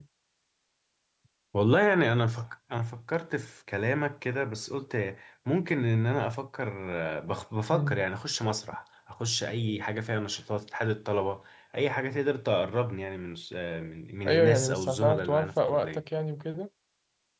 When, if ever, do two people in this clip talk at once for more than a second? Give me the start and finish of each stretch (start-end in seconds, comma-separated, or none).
14.3-16.0